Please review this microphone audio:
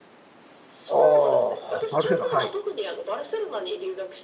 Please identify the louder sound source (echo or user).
user